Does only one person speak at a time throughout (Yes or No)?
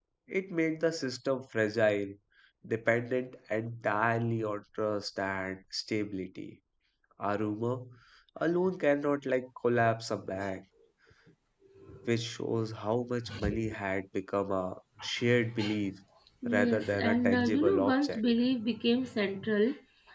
No